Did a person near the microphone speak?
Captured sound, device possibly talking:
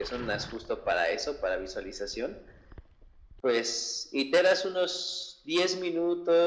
No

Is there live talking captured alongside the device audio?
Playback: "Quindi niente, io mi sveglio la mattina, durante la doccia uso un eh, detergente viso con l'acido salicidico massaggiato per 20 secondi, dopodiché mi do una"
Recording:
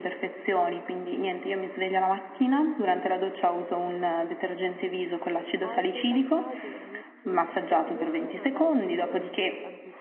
Yes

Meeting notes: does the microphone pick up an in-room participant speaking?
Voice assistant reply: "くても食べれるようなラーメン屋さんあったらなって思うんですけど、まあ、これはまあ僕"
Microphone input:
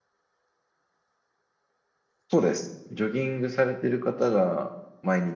Yes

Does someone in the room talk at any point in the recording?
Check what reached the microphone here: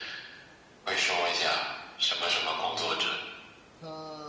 Yes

